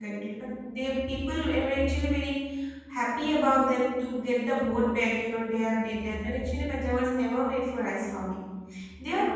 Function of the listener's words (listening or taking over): taking over